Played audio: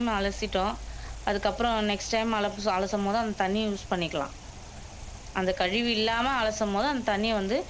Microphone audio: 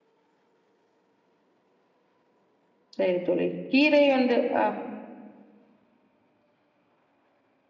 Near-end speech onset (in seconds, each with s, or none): 3.0 s